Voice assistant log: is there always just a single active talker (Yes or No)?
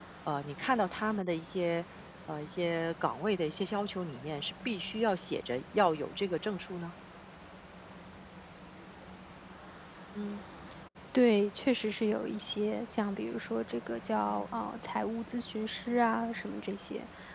Yes